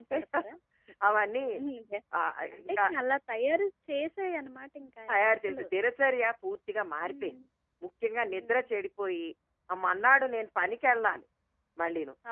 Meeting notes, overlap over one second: none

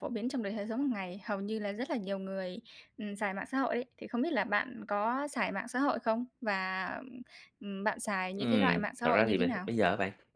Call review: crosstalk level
present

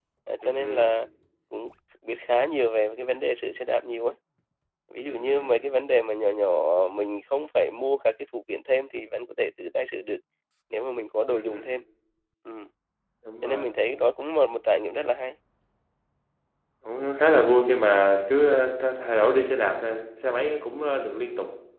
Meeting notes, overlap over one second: none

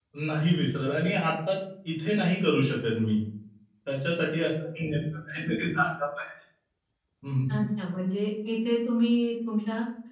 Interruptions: none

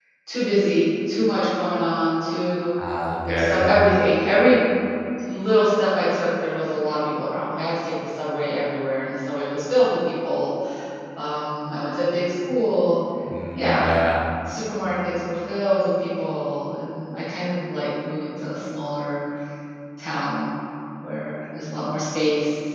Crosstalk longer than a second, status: none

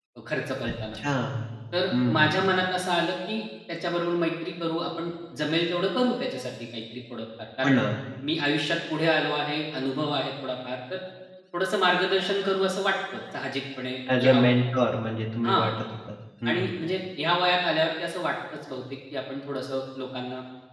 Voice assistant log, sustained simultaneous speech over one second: none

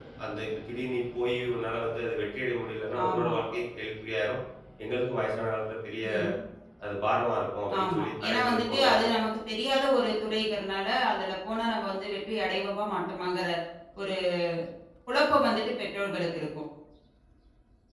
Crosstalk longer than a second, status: present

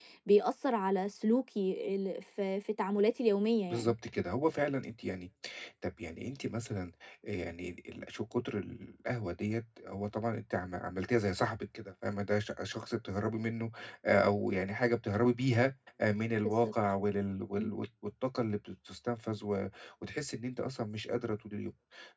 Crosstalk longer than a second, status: none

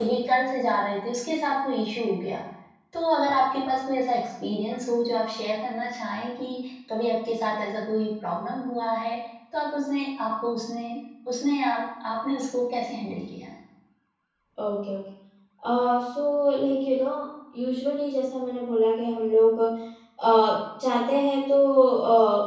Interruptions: none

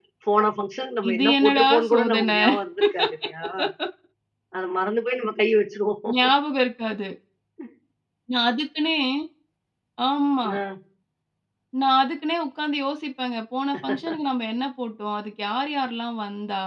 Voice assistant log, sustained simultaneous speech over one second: present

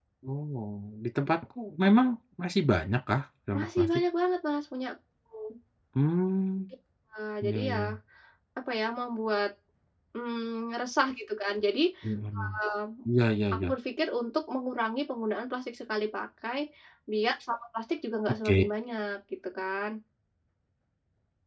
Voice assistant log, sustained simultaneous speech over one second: none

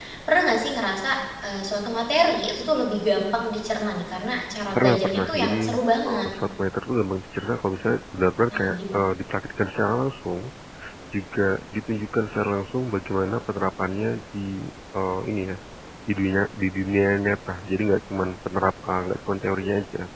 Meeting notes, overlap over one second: present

